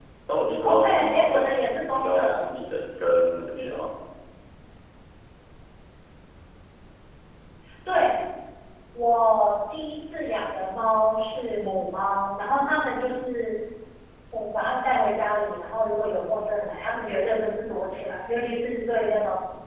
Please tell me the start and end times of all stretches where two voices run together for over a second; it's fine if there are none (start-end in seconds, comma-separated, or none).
0.6-2.4